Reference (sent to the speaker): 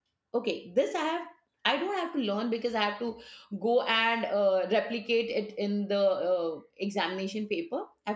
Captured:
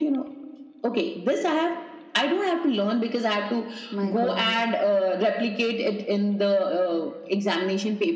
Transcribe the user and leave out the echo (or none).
My god.